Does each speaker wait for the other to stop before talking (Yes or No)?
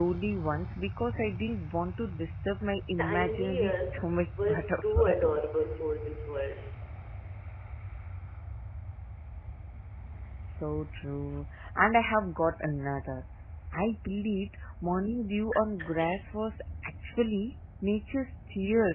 No